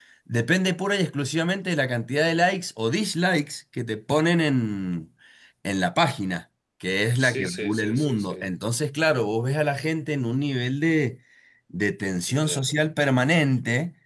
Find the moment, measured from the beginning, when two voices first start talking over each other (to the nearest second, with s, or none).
7 s